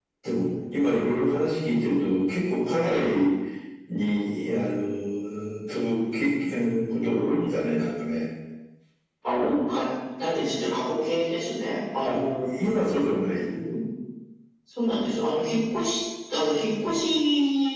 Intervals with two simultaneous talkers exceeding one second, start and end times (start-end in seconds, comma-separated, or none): none